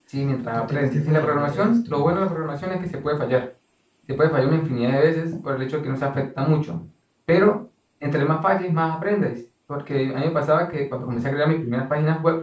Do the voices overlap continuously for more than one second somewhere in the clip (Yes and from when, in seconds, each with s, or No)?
Yes, from 0.5 s